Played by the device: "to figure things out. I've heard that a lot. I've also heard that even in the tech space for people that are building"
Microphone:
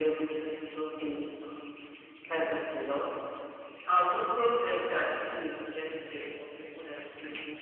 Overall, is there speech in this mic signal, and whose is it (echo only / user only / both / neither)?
echo only